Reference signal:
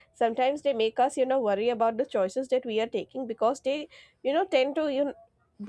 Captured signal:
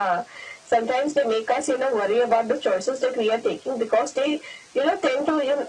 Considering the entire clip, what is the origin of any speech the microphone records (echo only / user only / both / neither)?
echo only